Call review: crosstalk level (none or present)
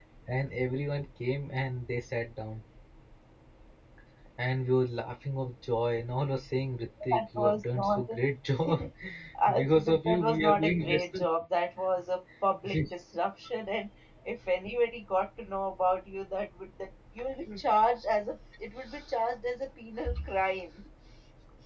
present